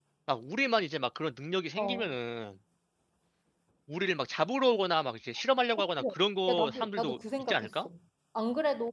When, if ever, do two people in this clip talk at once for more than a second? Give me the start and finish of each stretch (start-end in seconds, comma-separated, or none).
6.5-7.9